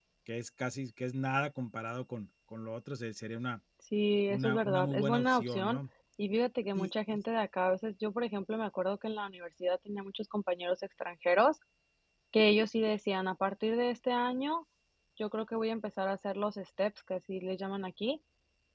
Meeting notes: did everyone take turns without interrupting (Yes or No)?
No